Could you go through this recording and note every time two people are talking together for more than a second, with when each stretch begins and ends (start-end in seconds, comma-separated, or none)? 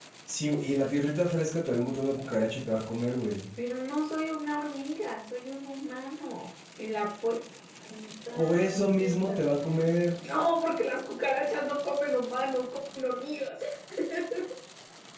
none